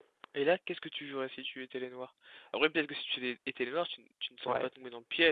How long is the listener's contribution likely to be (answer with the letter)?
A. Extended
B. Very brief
A